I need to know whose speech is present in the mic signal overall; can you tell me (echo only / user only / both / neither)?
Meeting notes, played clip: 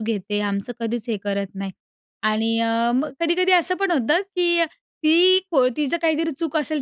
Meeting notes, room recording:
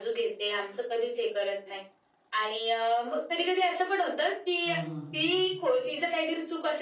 both